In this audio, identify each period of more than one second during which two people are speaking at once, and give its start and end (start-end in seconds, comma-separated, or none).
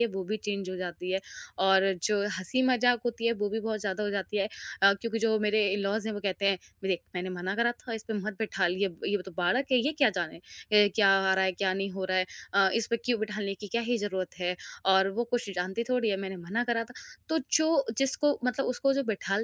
none